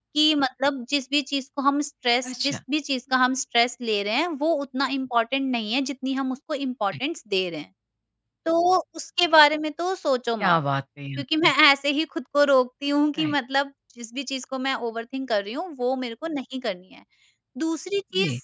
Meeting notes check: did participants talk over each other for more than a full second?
No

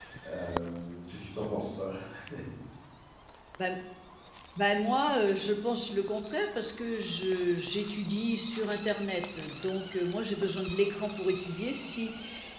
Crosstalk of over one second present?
No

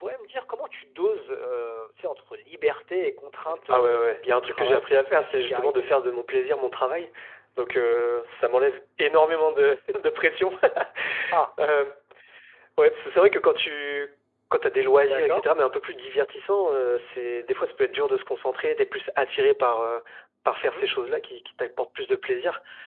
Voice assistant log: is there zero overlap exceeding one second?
No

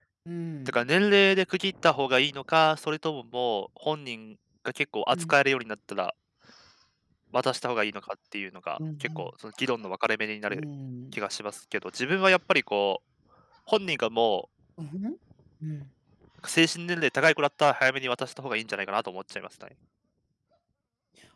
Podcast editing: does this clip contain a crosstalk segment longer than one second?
No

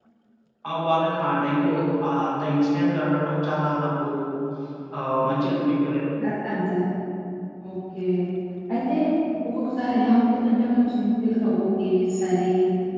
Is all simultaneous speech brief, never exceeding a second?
Yes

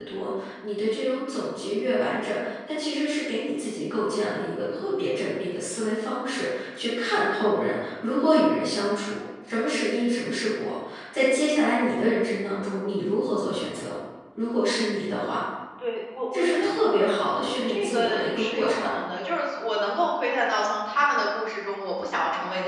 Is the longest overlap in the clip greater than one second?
Yes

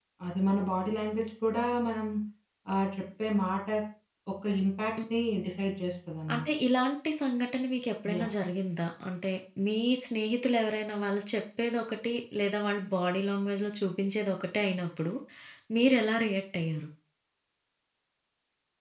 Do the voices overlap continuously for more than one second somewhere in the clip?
No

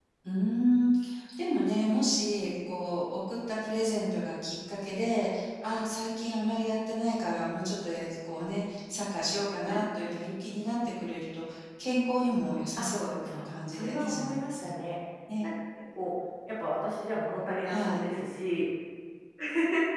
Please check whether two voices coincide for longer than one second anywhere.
Yes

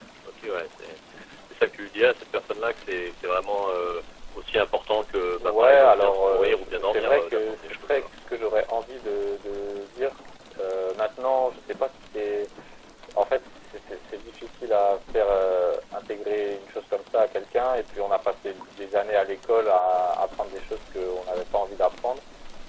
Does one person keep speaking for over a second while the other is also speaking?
Yes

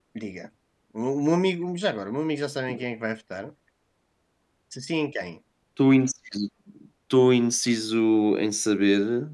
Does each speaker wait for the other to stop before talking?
Yes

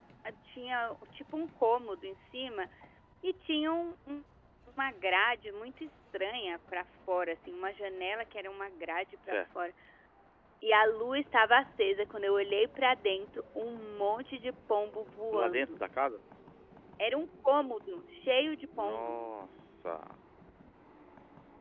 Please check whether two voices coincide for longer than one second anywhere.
No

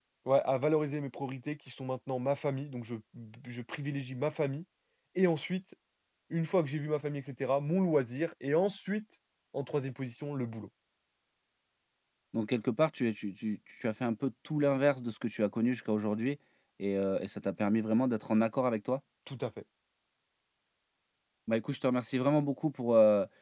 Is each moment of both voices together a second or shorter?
Yes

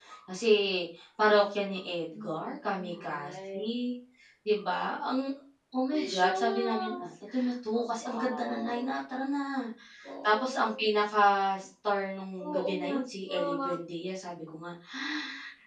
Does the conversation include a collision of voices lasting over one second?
Yes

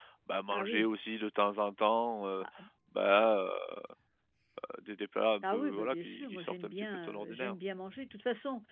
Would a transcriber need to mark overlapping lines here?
Yes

